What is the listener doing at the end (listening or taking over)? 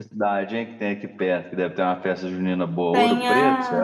taking over